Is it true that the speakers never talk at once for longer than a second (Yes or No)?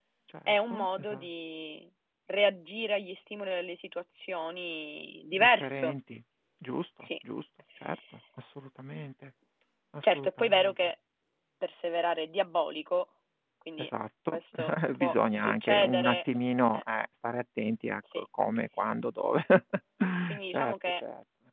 No